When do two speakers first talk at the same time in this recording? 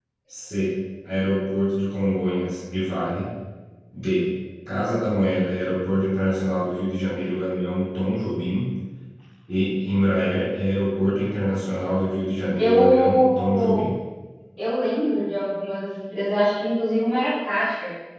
12.6 s

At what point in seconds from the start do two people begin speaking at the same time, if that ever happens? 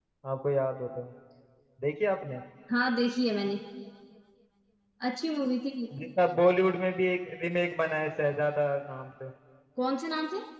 none

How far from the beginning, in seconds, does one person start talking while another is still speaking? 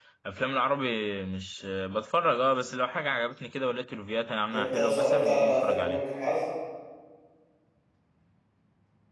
4.5 s

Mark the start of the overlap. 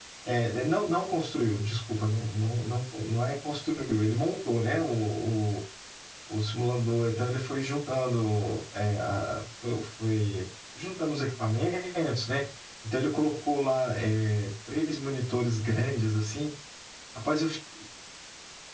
none

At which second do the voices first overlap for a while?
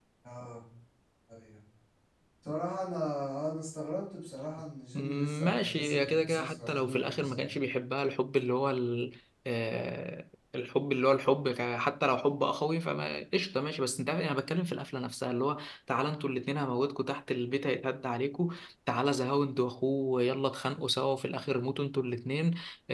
4.9 s

